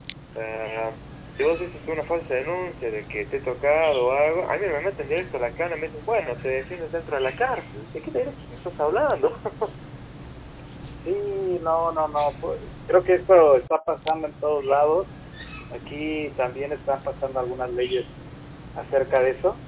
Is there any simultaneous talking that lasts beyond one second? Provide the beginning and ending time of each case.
none

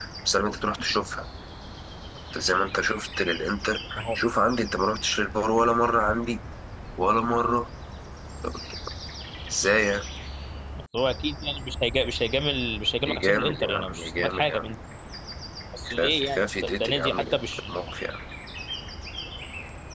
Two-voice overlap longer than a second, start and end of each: 13.1-14.6, 15.9-17.2

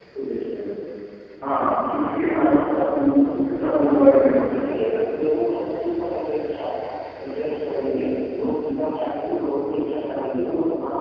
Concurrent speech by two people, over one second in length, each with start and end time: 3.6-4.8

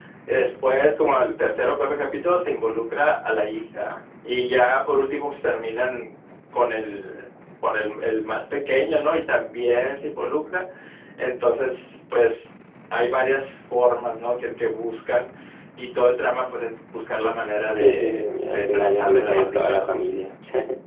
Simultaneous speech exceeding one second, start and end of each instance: 17.8-20.0

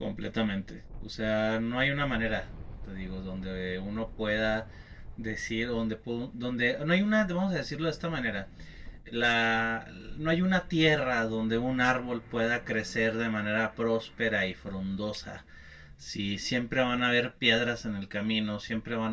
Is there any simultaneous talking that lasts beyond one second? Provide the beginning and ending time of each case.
none

